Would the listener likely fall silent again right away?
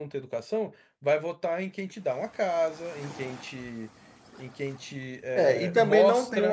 No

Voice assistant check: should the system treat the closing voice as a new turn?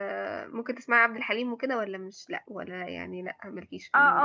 Yes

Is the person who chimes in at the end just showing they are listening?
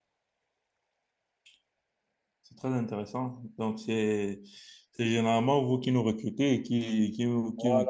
No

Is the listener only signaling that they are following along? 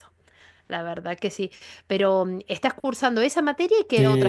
No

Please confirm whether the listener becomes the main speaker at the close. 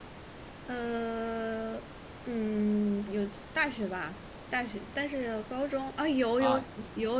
Yes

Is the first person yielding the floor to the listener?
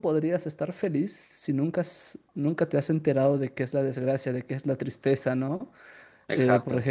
No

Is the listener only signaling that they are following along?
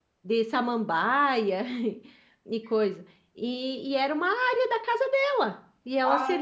Yes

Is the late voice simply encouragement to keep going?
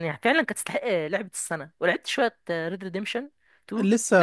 No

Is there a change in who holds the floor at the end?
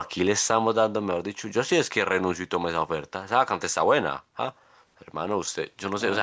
No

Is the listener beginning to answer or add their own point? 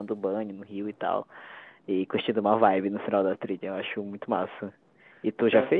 No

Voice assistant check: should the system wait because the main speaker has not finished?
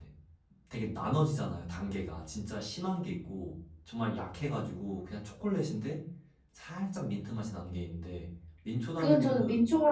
No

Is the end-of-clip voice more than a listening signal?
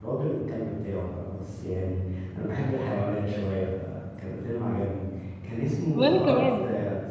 No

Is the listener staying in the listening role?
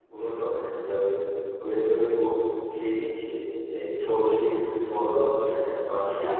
No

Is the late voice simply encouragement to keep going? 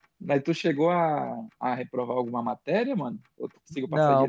No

